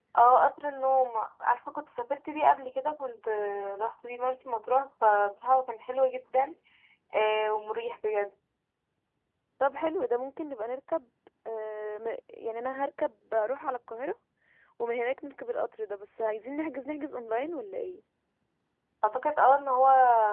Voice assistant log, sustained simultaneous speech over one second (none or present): none